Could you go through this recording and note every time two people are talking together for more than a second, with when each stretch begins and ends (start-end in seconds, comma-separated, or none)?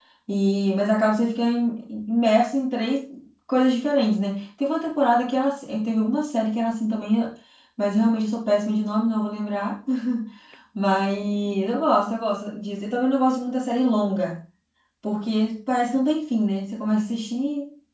none